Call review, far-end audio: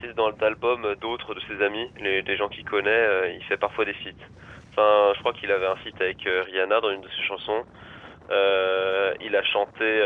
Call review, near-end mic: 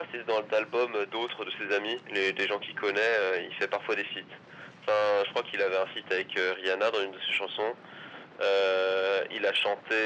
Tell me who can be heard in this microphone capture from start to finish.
echo only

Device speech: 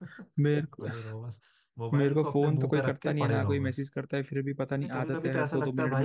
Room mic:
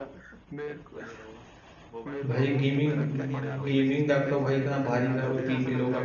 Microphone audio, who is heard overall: both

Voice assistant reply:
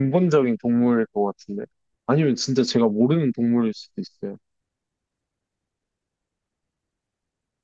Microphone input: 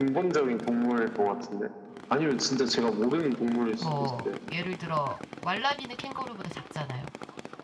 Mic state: both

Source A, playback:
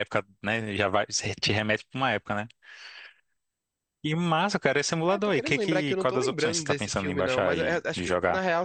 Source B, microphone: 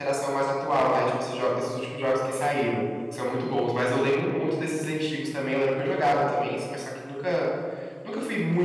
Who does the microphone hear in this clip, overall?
user only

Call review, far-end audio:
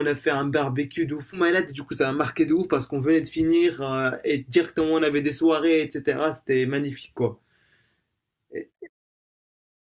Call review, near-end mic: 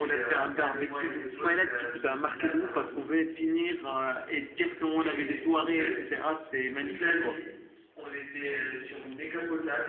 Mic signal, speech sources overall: both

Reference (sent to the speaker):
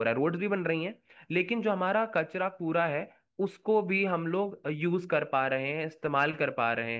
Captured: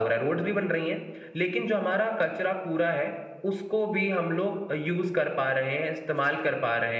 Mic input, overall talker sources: echo only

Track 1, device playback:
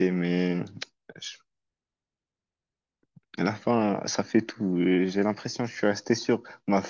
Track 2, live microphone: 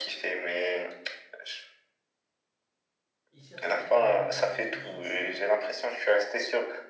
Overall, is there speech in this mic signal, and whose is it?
both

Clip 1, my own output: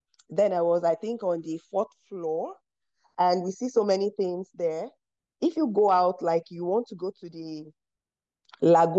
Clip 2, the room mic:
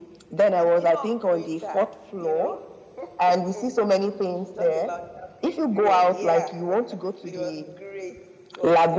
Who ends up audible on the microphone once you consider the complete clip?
both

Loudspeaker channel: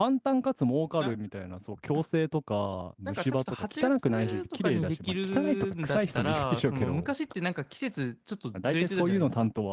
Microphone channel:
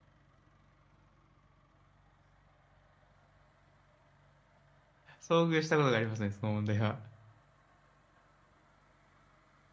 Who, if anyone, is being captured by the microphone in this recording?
user only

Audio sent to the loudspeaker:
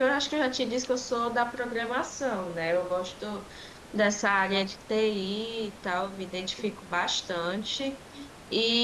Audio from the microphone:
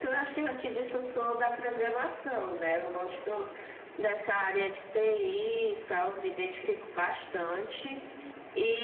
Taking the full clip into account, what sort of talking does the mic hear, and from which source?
echo only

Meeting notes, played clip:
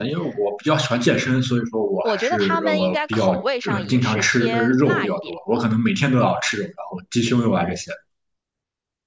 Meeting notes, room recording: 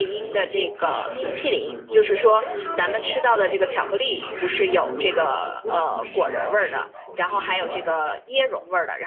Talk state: both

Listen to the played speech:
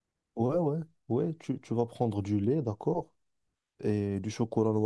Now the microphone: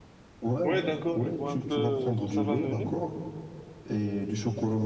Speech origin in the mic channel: both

